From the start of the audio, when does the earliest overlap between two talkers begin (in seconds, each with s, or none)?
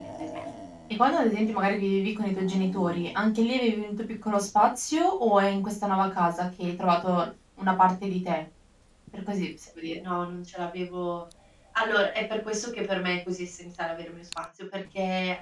none